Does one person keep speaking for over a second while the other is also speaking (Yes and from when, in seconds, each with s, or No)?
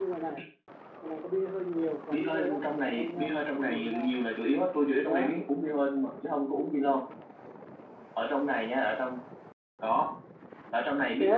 Yes, from 2.1 s